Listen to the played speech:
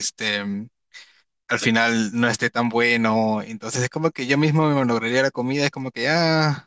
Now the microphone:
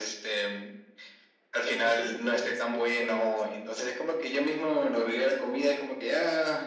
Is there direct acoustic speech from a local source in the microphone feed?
Yes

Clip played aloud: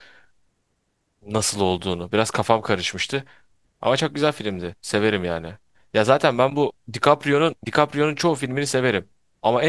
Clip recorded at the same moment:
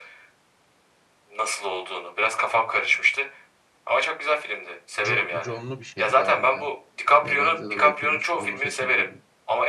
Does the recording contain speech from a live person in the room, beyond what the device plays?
Yes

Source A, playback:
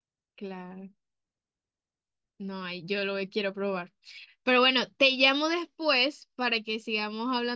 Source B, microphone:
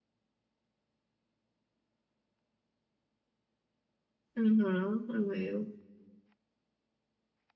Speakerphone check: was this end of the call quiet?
No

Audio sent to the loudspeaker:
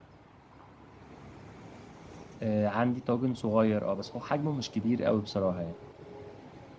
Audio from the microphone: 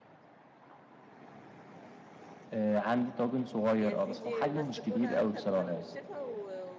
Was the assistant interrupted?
Yes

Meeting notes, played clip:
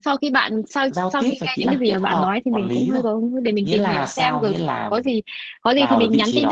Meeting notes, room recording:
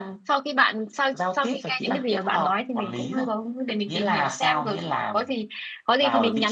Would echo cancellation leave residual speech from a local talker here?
No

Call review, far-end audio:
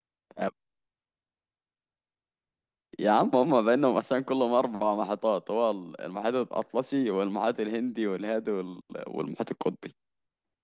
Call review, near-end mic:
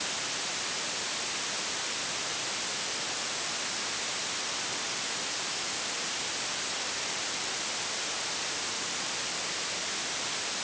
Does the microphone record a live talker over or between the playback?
No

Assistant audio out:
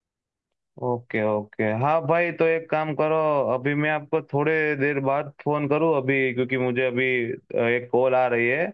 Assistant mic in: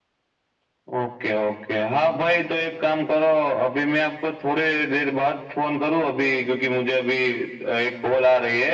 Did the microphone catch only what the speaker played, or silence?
Yes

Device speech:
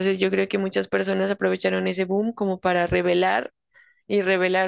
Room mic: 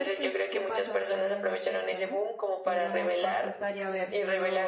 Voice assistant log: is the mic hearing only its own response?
No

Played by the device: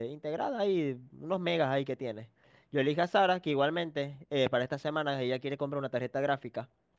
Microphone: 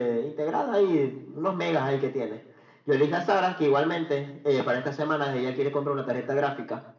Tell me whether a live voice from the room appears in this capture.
No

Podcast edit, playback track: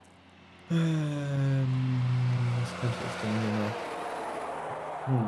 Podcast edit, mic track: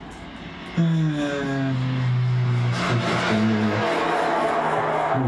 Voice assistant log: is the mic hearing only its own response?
Yes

